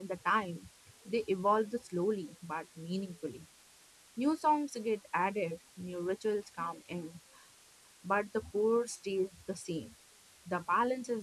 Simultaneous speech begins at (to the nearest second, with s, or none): none